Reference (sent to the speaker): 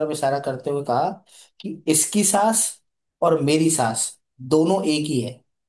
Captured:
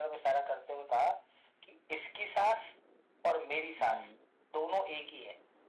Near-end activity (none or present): present